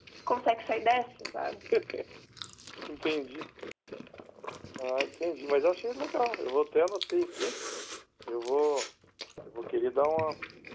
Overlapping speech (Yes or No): No